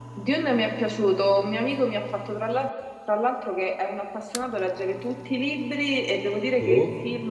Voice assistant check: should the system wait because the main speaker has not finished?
Yes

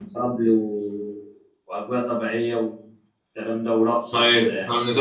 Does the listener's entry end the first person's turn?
Yes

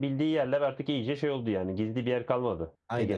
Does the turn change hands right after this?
Yes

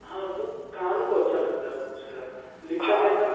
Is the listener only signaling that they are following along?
No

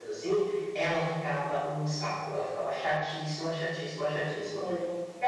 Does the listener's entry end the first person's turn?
No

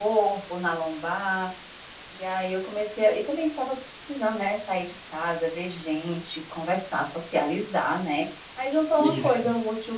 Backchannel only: Yes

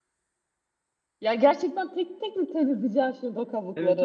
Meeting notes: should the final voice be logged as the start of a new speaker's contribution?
Yes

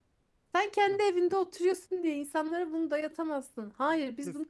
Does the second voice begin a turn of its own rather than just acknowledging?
Yes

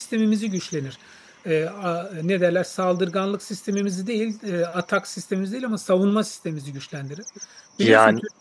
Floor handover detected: No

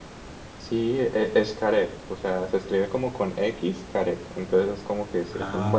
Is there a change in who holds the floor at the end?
No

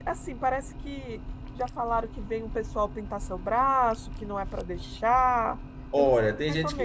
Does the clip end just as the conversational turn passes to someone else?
Yes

